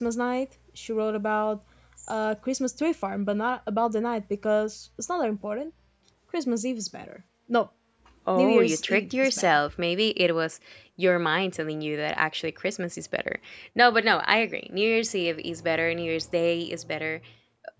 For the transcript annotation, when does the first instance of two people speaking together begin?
8.4 s

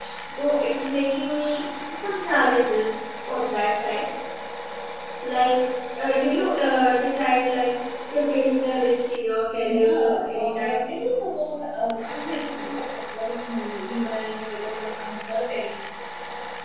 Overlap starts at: 9.6 s

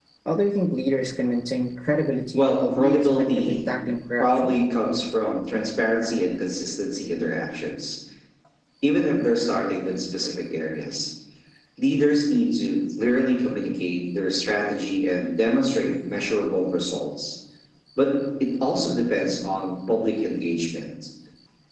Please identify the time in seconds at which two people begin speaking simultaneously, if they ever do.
2.3 s

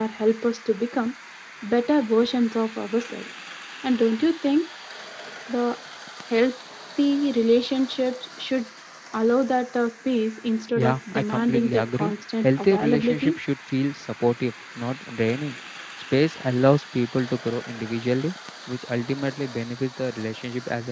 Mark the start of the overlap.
10.8 s

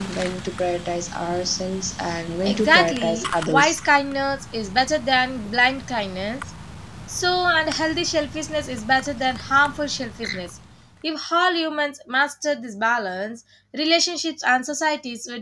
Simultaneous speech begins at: 2.4 s

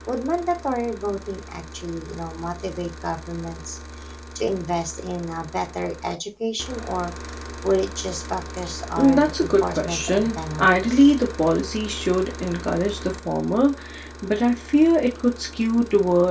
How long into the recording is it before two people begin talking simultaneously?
9.0 s

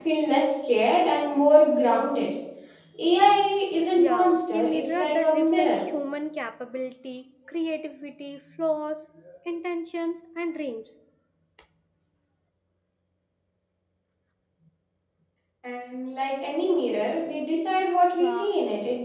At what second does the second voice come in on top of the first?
4.0 s

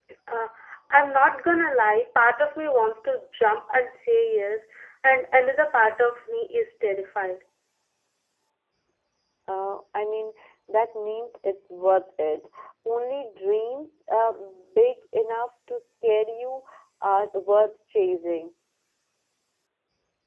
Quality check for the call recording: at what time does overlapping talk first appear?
none

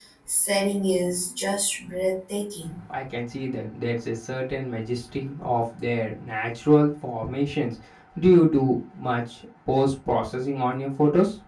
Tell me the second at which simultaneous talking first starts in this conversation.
none

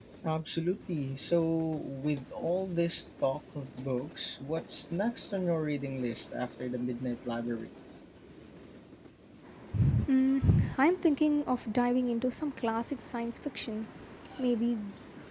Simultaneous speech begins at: none

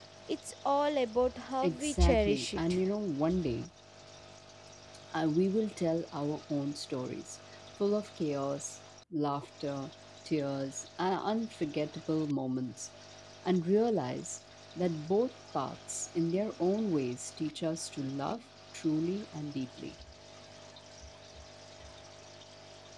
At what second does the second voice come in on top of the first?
1.6 s

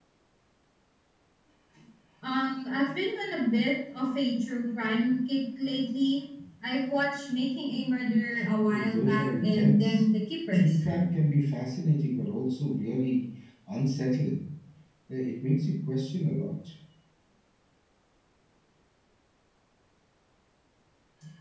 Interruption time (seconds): 8.7 s

